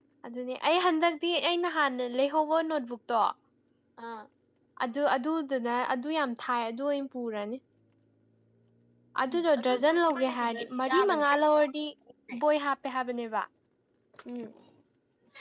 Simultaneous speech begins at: 9 s

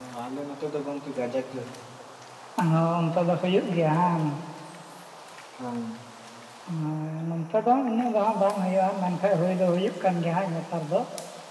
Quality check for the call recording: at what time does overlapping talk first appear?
none

